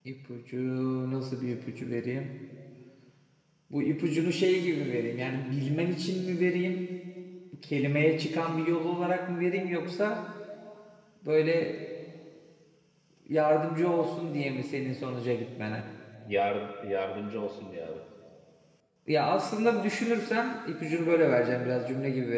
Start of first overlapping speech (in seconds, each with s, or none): none